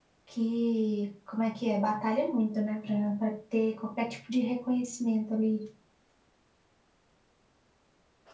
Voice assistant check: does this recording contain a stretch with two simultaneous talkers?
No

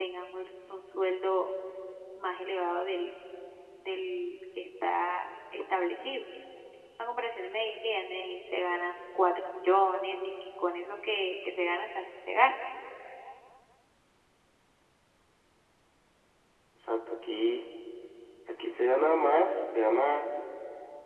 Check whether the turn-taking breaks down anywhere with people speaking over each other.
No

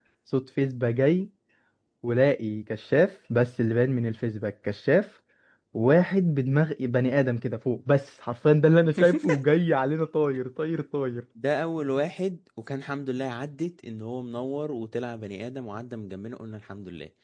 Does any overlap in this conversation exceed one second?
No

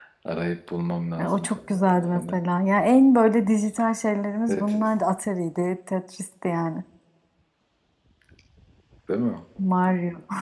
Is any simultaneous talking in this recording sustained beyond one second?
Yes, from 1.2 s

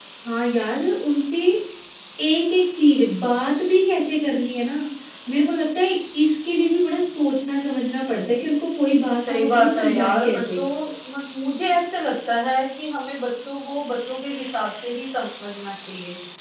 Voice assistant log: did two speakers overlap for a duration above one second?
Yes, from 9.3 s

